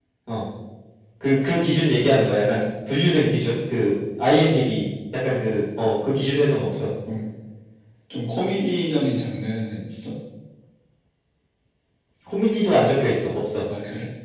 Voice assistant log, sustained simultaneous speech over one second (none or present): none